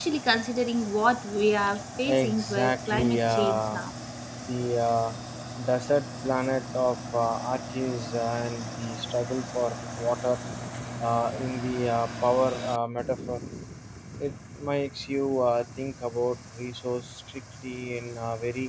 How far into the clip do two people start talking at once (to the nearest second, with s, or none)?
2 s